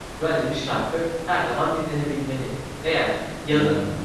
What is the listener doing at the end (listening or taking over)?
listening